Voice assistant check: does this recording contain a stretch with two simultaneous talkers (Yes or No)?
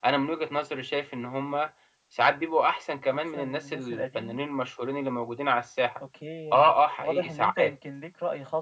Yes